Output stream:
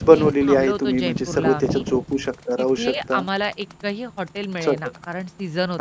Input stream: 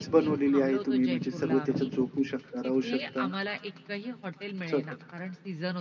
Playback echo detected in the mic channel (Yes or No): Yes